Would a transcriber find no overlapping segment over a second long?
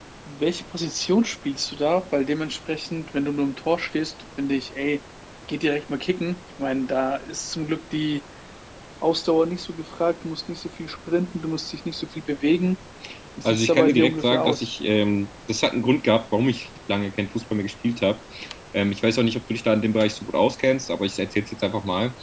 No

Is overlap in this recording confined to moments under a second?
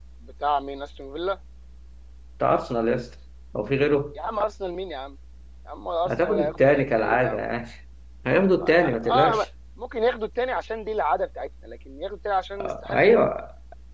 No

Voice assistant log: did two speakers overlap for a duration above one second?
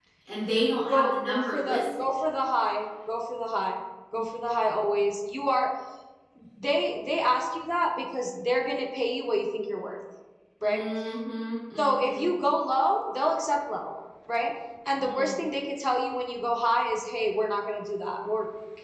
Yes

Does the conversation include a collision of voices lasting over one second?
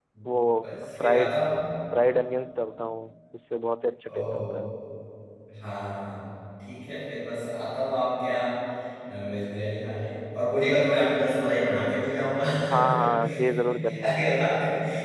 Yes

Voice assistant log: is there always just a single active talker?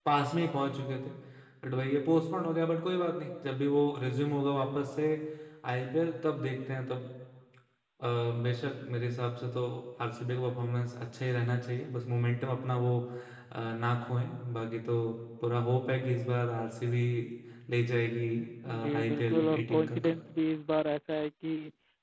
No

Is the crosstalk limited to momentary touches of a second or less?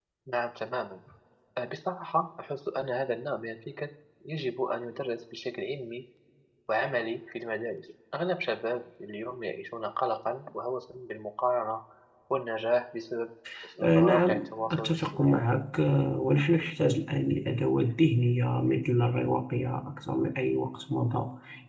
No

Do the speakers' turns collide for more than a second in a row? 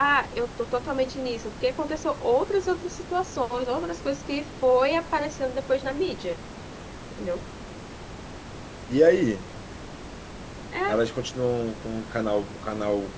No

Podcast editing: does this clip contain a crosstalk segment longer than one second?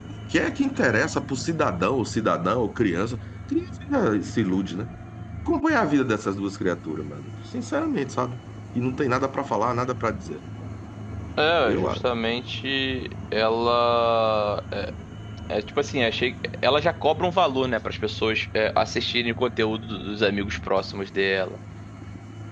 No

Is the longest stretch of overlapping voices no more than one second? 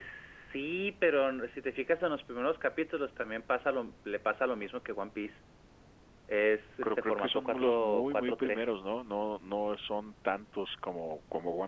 No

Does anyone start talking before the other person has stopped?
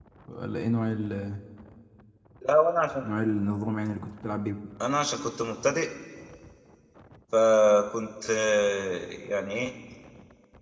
No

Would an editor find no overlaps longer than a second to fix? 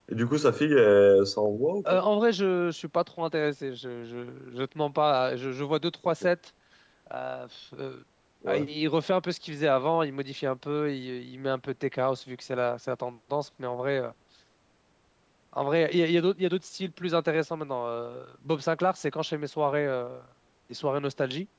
Yes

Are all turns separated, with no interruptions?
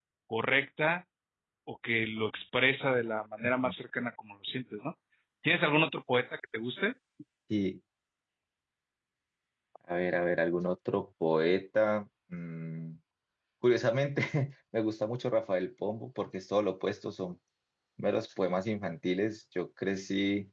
Yes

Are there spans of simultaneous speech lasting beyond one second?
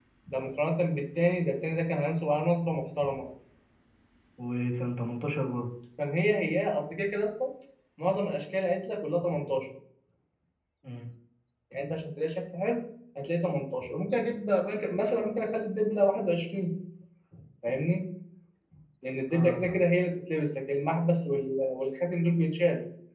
No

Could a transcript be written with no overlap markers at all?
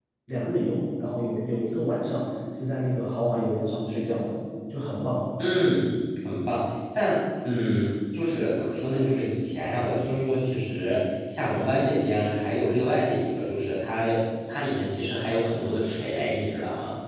Yes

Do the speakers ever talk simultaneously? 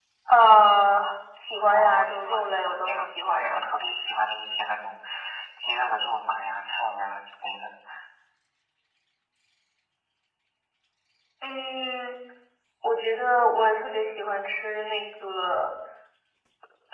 Yes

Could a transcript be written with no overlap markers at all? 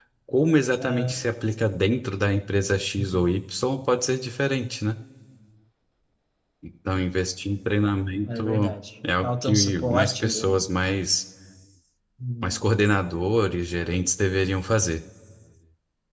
No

